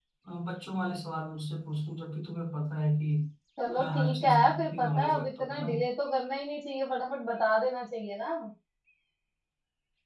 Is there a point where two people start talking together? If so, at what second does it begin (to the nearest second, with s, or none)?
4 s